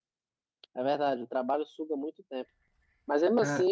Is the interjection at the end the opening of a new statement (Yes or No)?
No